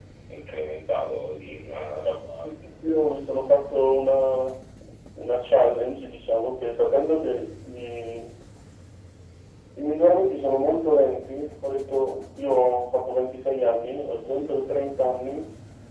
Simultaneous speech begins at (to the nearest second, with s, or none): none